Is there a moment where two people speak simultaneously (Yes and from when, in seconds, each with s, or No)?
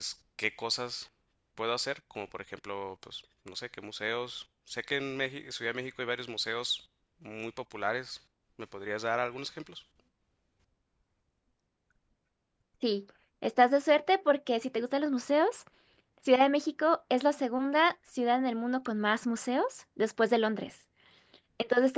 No